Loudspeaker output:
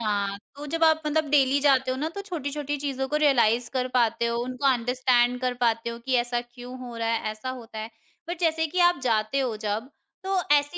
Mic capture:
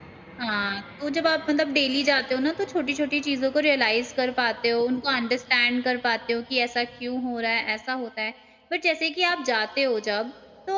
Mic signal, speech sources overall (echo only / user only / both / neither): echo only